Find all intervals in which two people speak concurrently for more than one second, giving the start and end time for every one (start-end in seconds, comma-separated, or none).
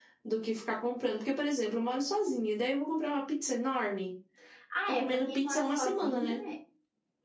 4.9-6.4